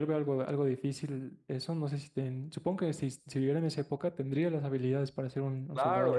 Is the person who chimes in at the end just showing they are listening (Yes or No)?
No